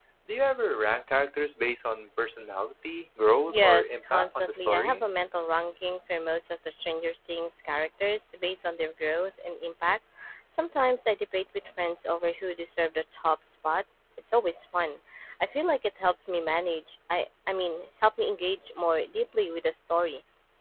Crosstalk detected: Yes, from 3.5 s

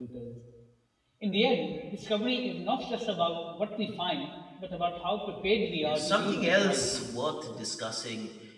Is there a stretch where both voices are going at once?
Yes, from 5.8 s

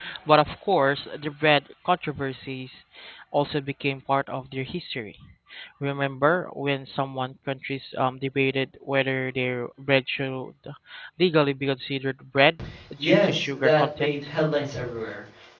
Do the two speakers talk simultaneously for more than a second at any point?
Yes, from 13.0 s

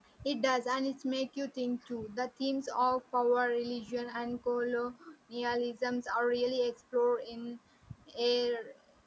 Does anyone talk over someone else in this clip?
No

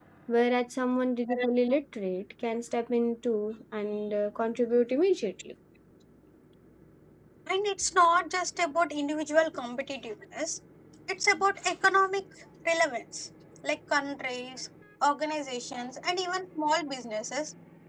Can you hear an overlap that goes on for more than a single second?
No

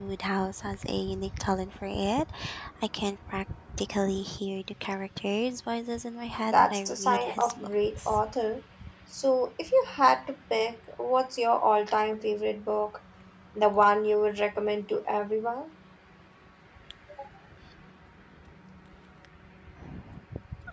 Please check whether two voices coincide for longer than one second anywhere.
Yes, from 6.5 s

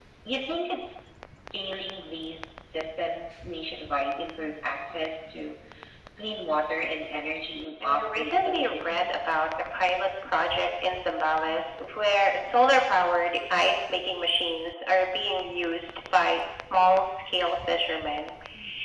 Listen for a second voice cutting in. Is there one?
Yes, from 7.8 s

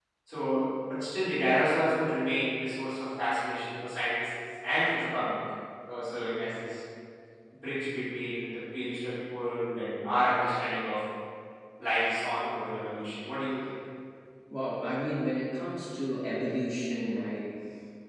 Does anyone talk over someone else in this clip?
No

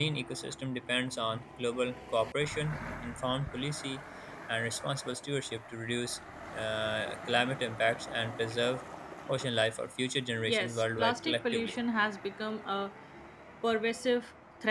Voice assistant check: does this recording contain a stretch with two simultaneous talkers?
Yes, from 10.5 s

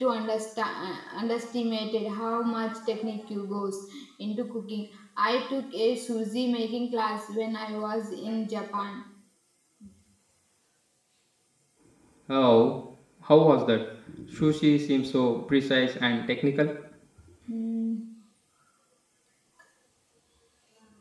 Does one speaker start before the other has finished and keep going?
No

